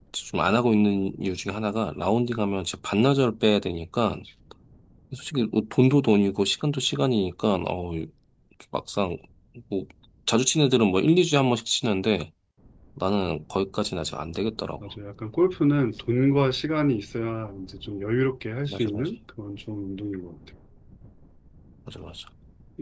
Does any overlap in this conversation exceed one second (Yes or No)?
No